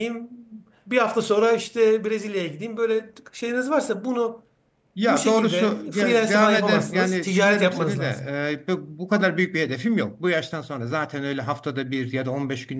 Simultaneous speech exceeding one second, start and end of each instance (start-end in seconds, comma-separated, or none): 5.0-8.1